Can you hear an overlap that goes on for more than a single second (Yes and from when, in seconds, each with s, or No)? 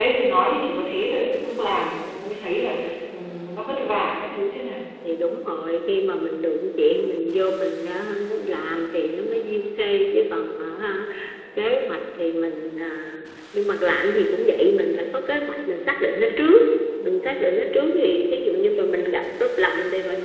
No